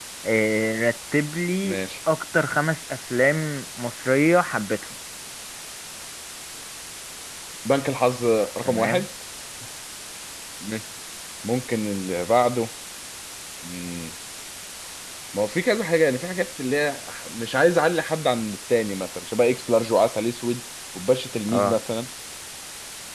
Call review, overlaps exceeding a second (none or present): none